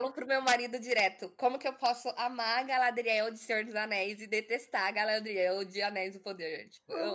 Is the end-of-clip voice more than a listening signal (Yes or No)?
Yes